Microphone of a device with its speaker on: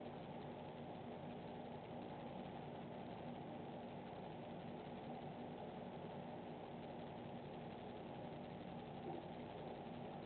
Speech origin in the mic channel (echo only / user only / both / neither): neither